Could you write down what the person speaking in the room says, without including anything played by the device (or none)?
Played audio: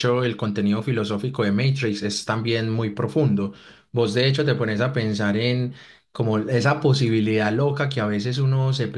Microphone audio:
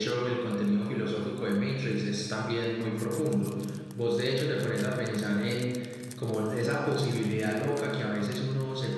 none